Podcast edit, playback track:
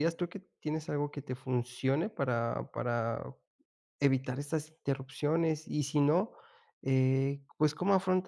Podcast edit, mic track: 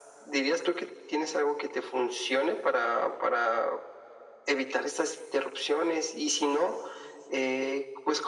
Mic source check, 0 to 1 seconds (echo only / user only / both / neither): echo only